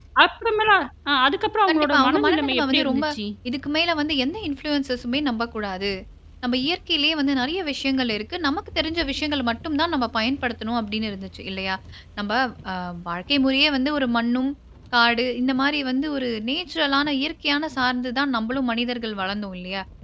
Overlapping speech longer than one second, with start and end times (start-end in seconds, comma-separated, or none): 1.7-3.0